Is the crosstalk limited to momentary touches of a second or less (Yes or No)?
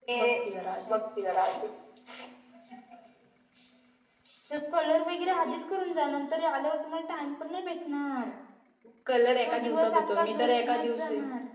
No